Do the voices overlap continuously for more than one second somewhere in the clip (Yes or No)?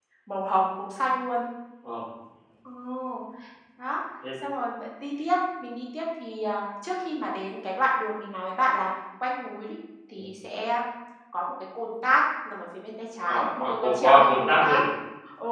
Yes